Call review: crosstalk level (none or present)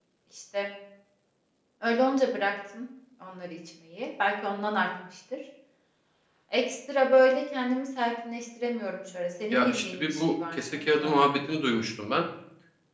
present